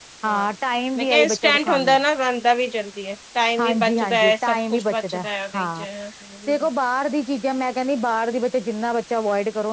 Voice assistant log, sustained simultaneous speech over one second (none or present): present